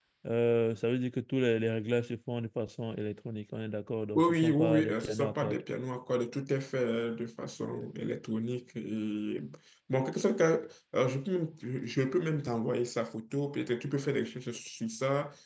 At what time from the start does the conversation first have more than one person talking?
4.2 s

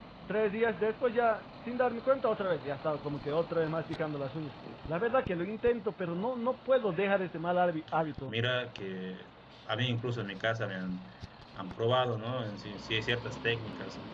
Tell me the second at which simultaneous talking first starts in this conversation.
none

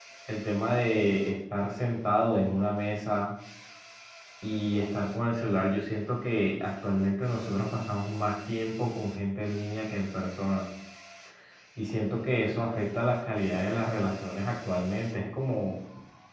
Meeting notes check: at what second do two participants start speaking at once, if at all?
none

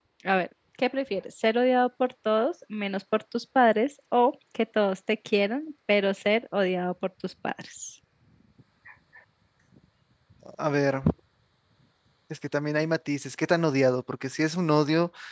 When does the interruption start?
none

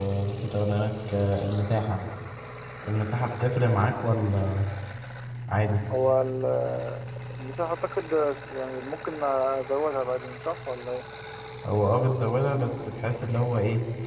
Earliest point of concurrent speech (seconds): none

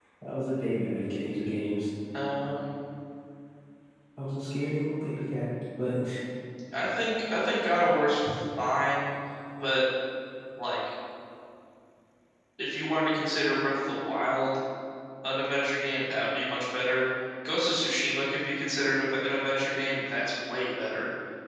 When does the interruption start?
none

